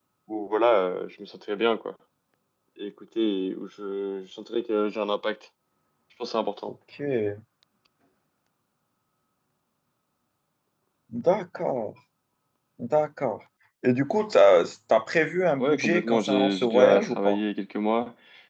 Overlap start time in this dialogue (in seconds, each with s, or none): 15.6 s